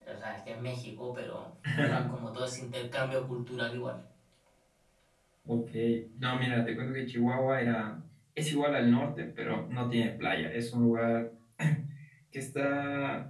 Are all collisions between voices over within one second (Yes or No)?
Yes